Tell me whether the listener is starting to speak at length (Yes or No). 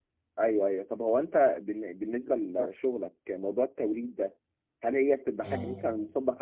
No